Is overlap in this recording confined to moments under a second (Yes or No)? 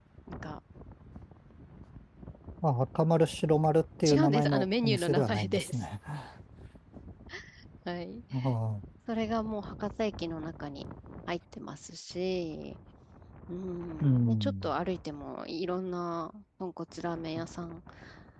No